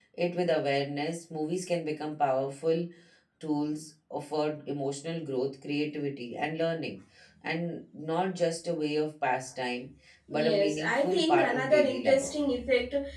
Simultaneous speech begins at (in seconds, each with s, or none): 10.3 s